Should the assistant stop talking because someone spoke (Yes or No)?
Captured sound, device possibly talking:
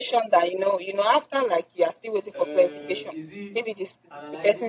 Yes